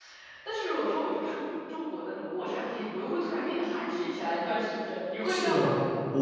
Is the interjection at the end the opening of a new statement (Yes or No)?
Yes